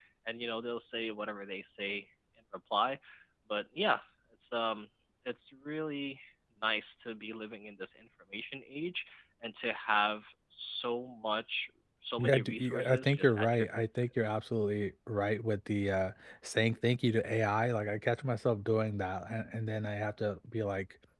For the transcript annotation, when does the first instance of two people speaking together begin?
12 s

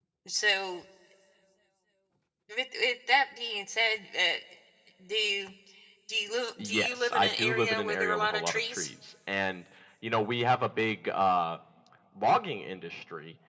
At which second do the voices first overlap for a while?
7 s

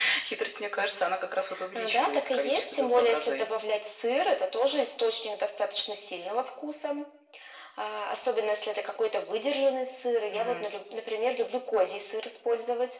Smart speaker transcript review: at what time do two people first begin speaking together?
2 s

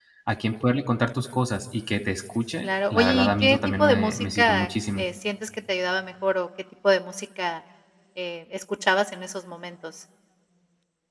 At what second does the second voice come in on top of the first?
3 s

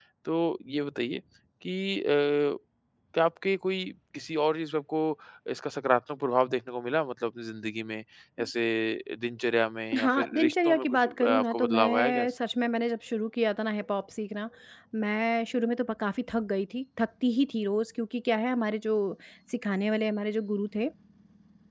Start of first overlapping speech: 10 s

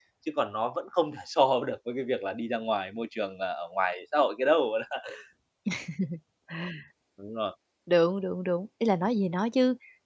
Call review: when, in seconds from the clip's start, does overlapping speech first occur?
none

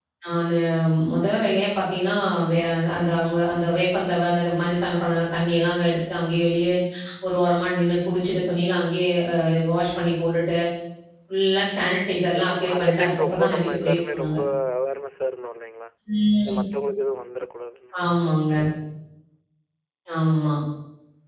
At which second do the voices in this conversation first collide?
12 s

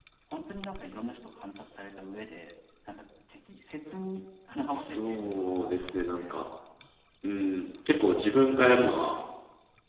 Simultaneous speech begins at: 5 s

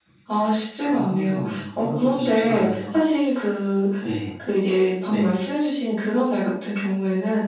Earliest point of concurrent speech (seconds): 1 s

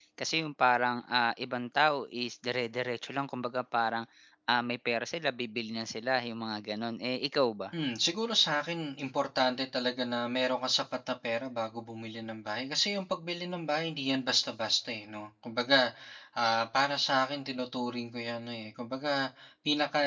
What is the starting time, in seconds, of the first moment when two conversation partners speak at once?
none

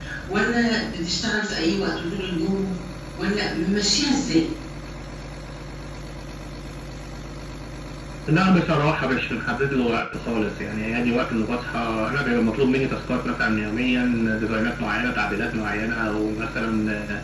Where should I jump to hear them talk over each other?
none

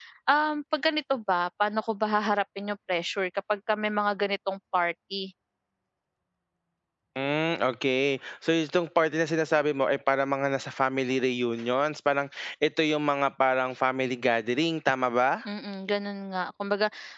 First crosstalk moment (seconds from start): none

